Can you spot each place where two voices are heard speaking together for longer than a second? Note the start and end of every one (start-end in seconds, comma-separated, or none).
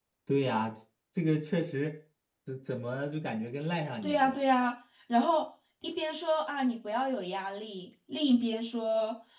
none